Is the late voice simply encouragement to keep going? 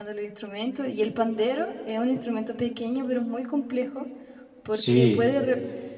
Yes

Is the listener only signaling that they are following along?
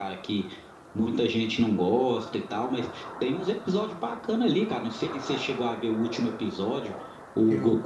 Yes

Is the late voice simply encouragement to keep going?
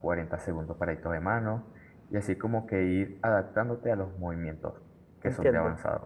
No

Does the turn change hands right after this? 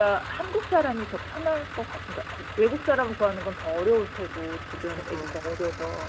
No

